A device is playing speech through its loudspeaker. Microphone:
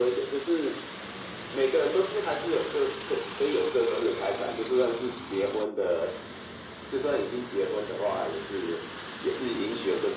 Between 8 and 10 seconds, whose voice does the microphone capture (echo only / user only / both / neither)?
echo only